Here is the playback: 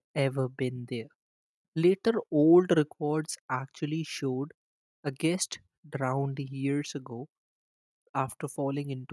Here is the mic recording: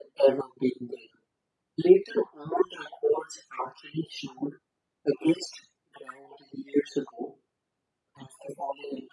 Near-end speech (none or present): none